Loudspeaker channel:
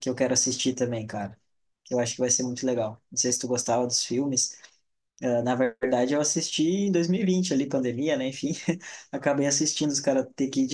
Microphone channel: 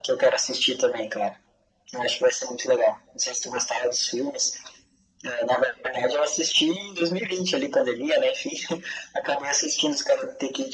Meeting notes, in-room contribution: none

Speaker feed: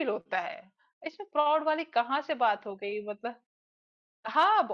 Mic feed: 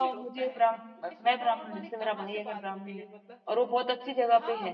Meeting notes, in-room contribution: present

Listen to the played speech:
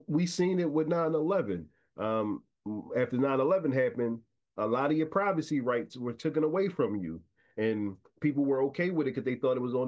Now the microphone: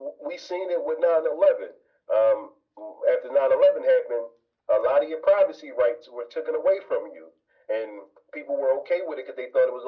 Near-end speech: none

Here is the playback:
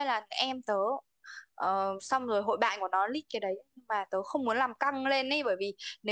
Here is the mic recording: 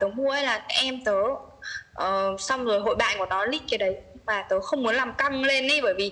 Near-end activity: none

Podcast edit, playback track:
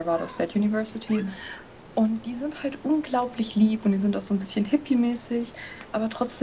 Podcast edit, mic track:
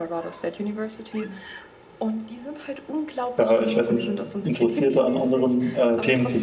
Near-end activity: present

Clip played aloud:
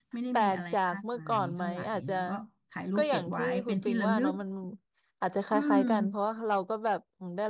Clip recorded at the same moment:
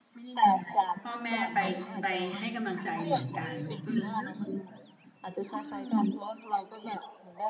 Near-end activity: present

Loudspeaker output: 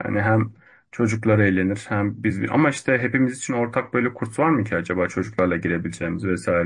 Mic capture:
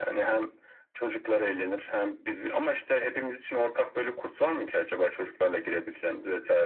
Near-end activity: none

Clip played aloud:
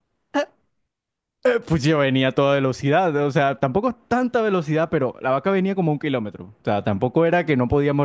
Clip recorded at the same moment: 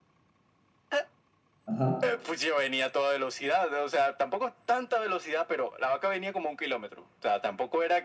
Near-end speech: present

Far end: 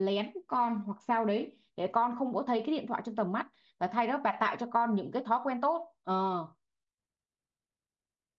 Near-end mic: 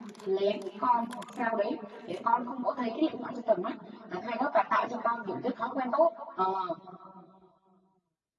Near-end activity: none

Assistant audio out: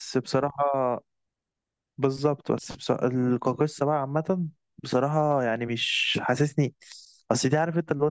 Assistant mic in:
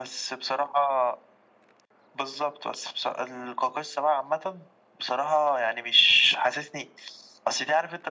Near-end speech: none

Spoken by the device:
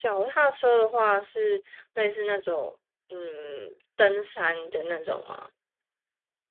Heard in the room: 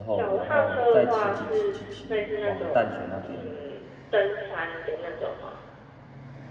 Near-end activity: present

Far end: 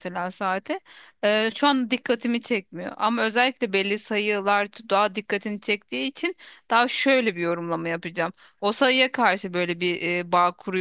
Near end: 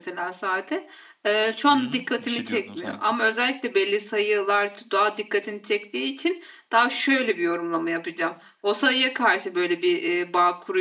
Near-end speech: present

